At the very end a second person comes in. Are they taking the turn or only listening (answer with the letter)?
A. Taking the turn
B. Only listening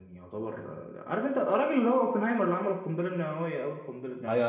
A